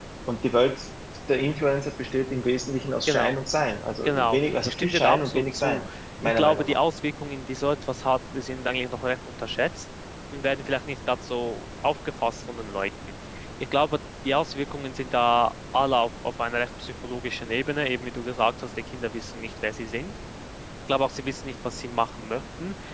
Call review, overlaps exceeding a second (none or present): present